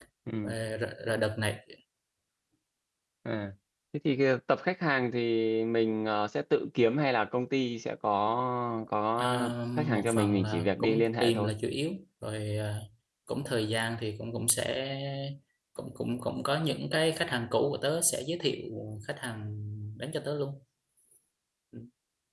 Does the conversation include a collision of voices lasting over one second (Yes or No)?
Yes